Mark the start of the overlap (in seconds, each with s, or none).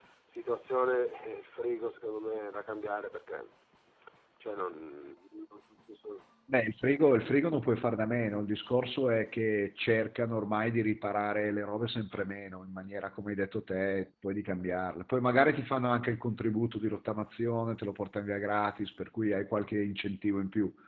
none